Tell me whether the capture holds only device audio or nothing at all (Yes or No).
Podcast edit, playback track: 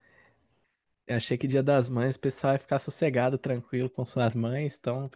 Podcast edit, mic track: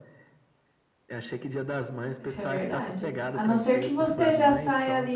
No